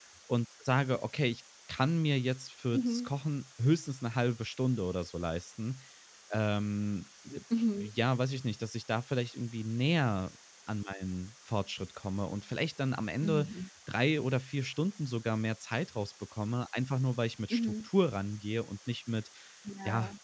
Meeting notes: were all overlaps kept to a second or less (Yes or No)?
Yes